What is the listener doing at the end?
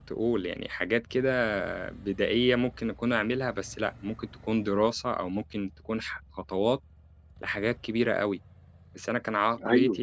taking over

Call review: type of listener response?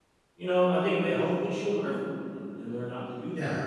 listening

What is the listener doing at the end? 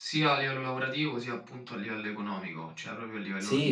taking over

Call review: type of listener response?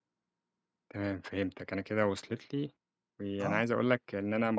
listening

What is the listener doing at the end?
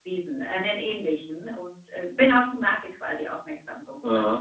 taking over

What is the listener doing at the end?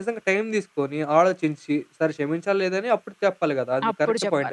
taking over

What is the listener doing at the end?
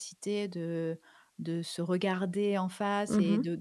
listening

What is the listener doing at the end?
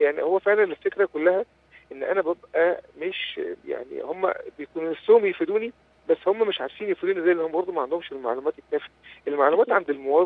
listening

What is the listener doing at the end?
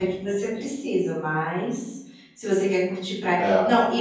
listening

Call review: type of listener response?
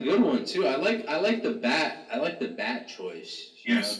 taking over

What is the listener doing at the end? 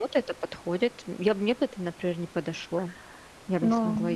taking over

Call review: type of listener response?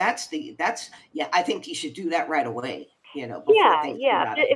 taking over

